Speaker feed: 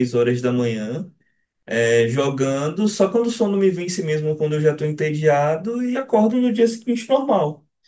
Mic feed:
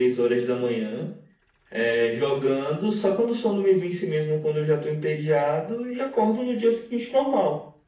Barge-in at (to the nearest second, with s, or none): none